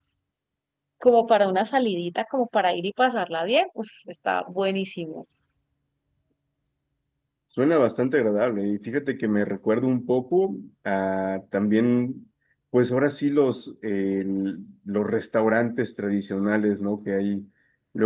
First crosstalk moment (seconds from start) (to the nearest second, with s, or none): none